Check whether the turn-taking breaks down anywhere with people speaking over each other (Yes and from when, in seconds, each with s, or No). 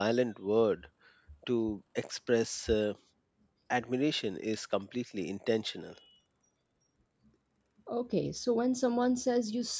No